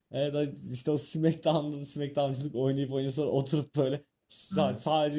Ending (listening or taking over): listening